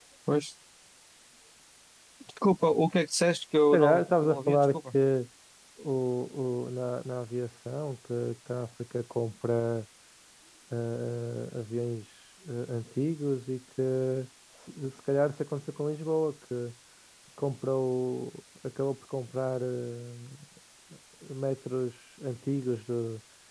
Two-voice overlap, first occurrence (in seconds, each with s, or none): 3.7 s